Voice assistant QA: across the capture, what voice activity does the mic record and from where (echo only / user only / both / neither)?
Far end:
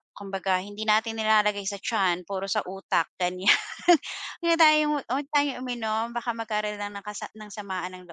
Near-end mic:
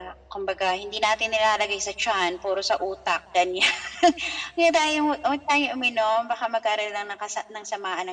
echo only